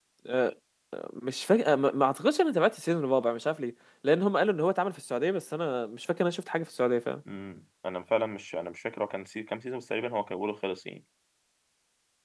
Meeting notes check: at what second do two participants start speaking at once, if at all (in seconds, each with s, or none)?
none